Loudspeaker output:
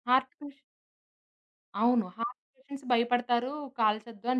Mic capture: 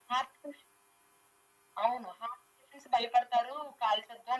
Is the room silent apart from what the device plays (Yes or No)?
Yes